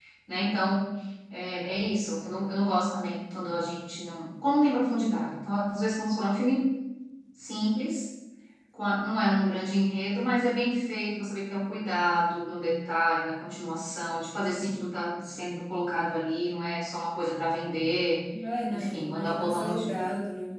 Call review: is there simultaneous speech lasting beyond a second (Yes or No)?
Yes